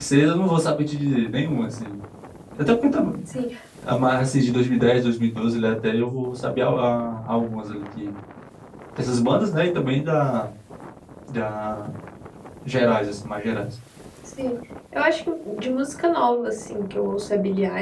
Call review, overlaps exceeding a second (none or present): none